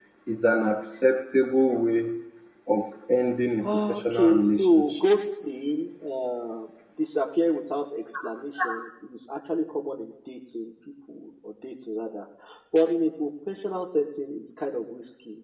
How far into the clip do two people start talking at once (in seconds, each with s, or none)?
3.6 s